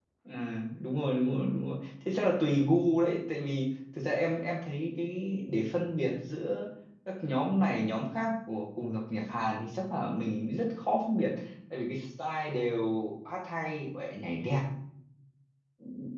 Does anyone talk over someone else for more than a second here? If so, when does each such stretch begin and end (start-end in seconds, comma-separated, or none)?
none